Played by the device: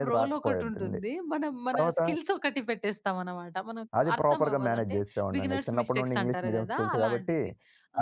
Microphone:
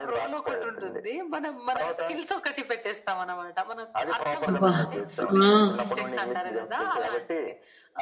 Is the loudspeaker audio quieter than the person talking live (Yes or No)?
Yes